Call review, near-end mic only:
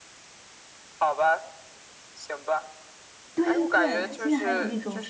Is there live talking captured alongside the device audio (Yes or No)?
Yes